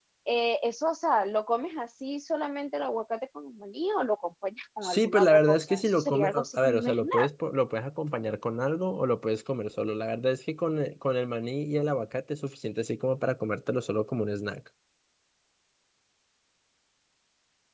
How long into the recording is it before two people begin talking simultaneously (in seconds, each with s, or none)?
4.8 s